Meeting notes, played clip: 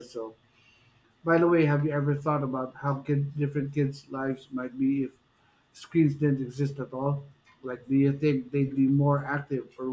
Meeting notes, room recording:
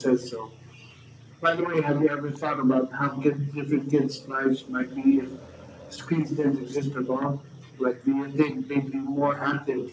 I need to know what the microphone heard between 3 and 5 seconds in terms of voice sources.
echo only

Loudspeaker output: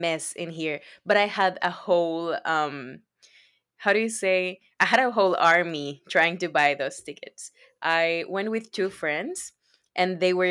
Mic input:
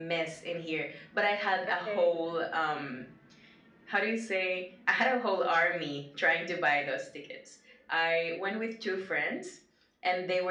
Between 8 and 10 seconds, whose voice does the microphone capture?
echo only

